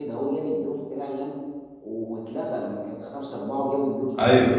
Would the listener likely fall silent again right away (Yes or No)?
No